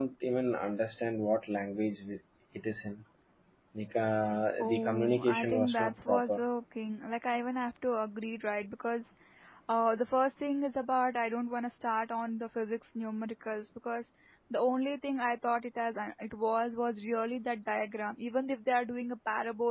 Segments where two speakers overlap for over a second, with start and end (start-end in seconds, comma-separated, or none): 4.6-6.4